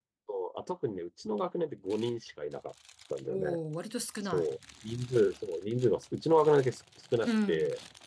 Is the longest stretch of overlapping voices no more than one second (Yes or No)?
Yes